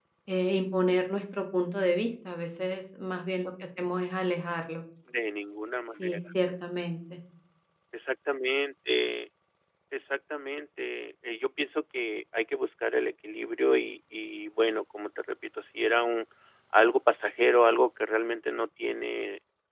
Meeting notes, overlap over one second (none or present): none